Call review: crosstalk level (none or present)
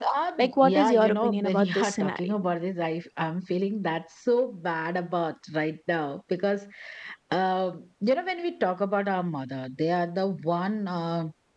present